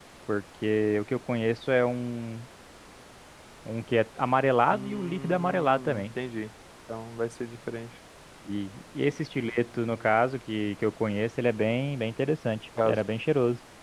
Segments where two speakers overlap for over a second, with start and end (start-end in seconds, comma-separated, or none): 4.7-6.0